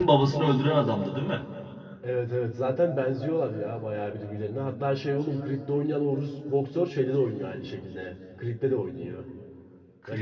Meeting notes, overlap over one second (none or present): none